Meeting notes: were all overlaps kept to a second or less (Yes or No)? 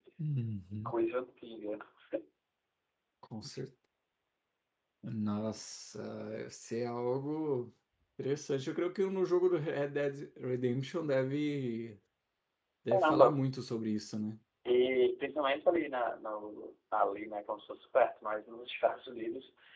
Yes